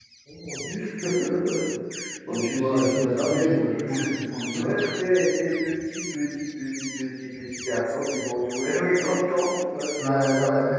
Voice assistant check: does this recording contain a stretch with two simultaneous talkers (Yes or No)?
Yes